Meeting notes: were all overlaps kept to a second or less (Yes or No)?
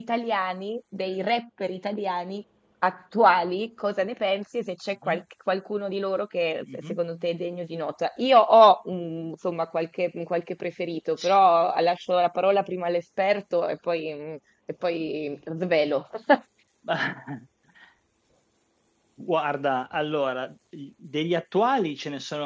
Yes